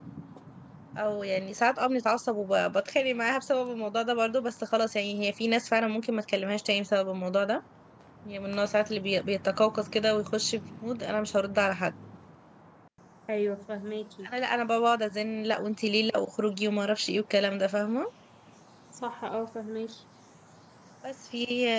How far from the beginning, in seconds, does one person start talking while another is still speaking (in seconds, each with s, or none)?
none